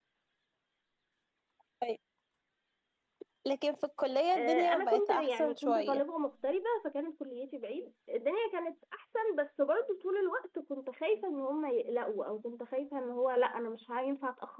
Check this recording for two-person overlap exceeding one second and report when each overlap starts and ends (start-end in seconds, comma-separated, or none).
4.4-6.0